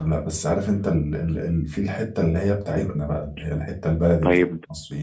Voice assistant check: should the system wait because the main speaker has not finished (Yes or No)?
No